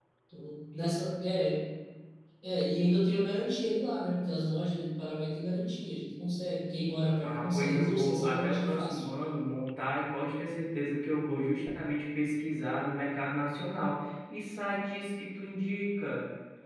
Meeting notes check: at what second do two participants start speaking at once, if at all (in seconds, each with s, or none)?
7.2 s